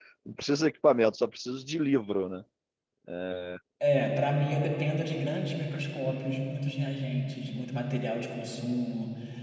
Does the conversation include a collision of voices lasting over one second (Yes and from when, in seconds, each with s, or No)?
No